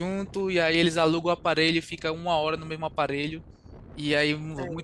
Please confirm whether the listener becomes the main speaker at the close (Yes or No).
No